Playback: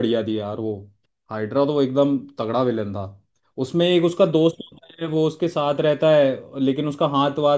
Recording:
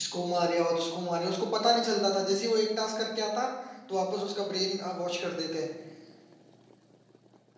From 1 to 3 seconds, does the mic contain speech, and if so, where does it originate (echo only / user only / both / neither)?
user only